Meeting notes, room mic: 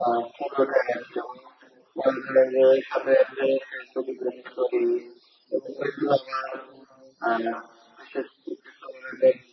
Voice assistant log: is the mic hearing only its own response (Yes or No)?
Yes